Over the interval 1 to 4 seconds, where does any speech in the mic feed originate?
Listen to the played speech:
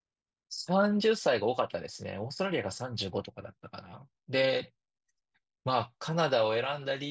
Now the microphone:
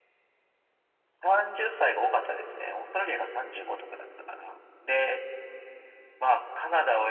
echo only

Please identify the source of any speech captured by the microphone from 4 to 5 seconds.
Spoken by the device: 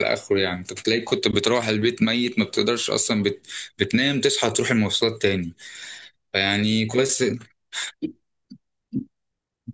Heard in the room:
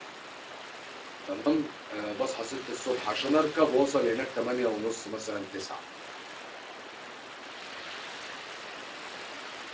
user only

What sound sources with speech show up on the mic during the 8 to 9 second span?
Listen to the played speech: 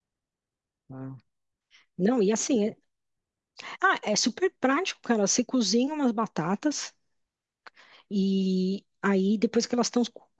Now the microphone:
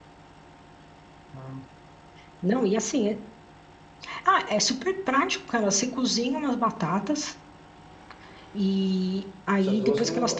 echo only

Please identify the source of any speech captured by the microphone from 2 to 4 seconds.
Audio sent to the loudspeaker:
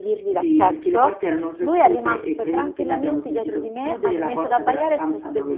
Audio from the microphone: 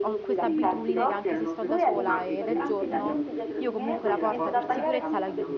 both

